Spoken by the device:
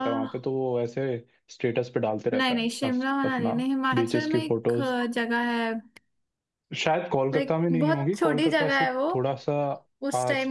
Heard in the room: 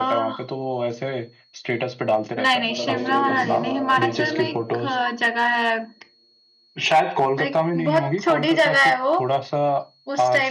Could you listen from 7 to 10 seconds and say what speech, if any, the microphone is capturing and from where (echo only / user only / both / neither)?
echo only